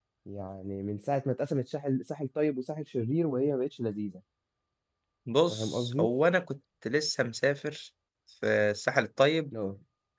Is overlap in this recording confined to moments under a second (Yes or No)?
Yes